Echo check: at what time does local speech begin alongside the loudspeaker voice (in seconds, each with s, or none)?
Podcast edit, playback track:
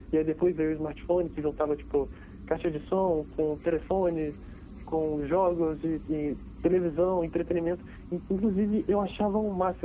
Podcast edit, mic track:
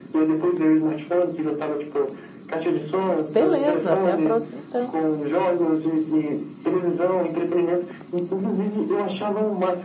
3.3 s